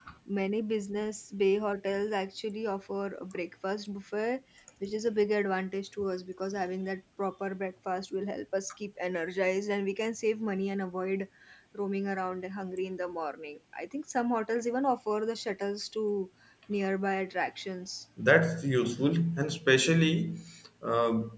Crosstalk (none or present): none